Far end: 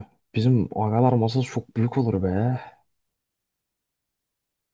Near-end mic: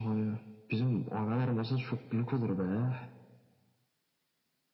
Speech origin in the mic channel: echo only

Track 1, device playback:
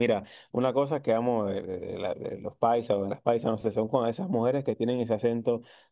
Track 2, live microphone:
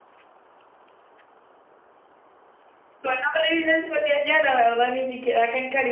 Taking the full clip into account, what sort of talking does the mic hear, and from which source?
user only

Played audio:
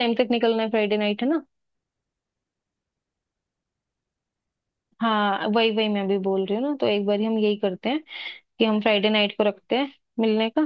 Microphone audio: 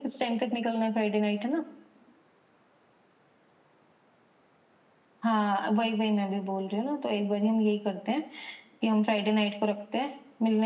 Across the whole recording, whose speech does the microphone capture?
echo only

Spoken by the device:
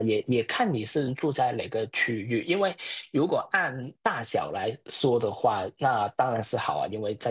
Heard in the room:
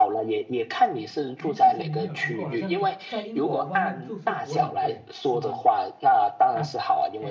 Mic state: both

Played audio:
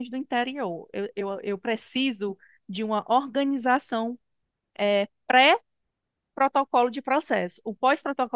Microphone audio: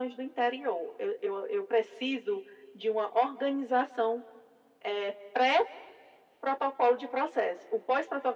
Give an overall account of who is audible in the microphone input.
echo only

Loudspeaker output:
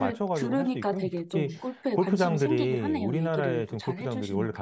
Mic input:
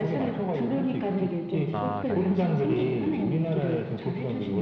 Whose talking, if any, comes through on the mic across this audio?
both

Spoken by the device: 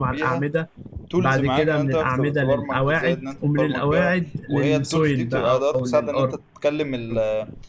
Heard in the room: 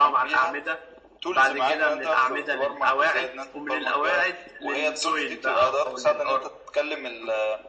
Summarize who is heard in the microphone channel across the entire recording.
echo only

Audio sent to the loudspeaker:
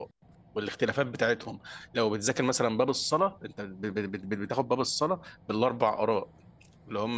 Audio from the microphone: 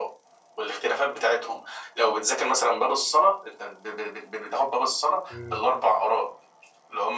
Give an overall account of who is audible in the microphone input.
both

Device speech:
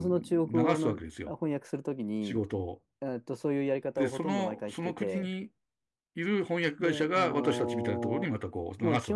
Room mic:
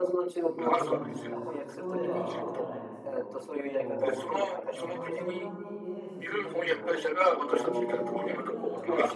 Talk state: both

